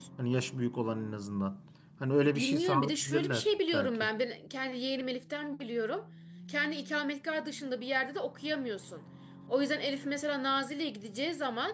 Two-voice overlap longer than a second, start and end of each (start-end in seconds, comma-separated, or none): 2.4-4.1